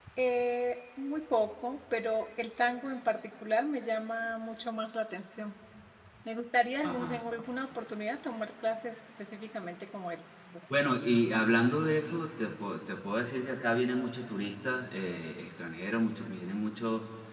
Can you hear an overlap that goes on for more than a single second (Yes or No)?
No